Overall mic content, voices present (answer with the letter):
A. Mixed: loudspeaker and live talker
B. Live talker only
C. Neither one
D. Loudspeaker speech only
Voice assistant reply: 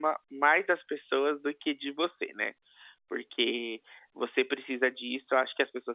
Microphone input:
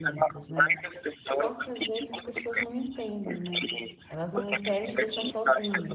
A